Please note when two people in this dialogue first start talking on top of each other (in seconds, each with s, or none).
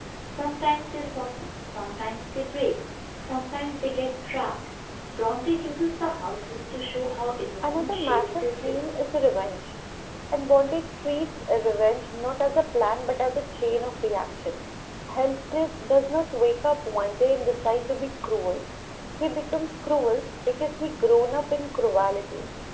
7.6 s